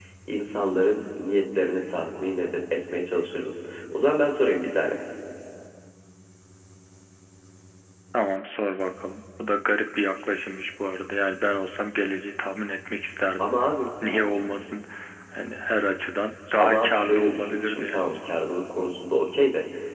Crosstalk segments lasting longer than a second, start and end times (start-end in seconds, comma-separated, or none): 16.6-18.1